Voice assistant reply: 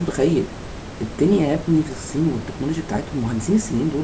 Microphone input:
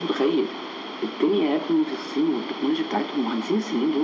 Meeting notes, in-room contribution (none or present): none